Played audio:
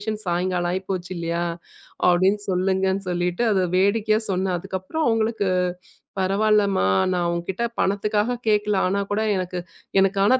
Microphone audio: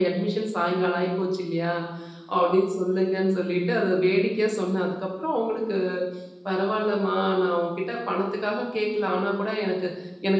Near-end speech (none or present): none